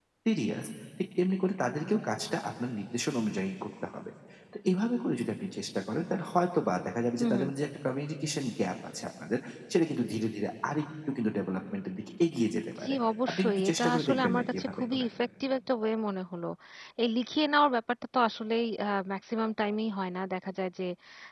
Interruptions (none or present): present